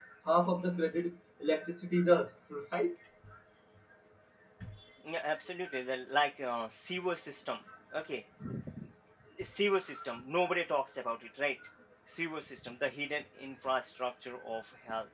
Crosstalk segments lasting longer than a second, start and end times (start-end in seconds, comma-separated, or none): none